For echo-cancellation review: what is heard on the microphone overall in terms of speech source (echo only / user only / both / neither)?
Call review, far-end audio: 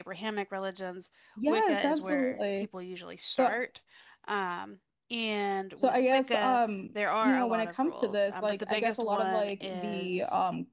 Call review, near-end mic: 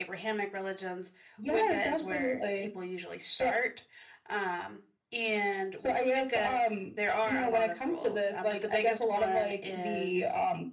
echo only